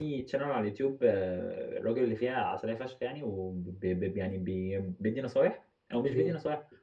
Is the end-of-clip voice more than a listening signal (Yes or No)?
No